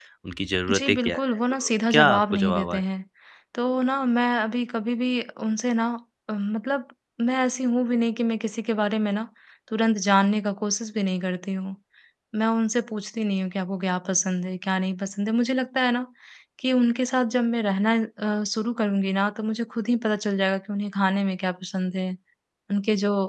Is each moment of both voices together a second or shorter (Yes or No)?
No